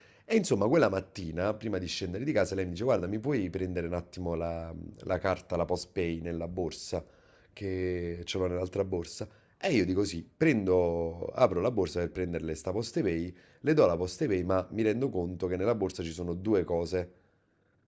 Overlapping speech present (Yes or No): No